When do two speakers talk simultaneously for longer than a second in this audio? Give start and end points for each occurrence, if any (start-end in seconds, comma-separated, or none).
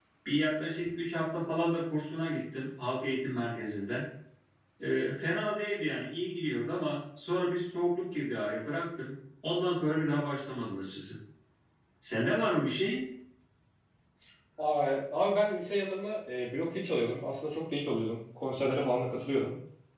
none